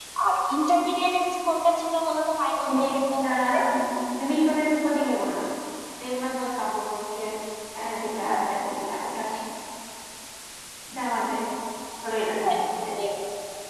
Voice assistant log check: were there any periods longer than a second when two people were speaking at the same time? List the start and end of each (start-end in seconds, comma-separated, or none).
none